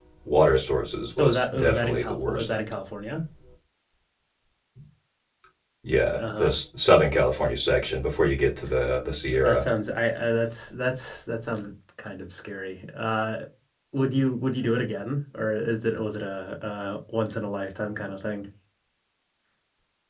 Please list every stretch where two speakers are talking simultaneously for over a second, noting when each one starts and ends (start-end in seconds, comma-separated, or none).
1.2-2.6